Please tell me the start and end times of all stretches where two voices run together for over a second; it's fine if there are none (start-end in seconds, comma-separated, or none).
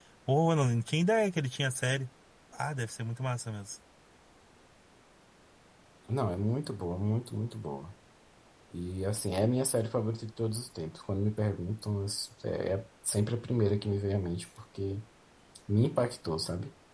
none